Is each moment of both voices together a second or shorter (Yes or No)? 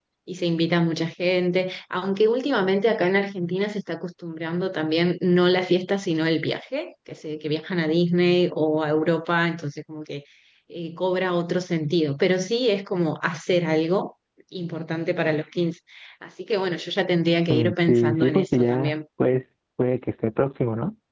No